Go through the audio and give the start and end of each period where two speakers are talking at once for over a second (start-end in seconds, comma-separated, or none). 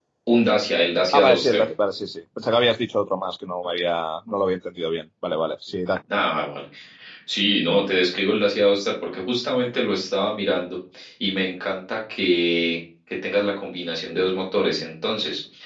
none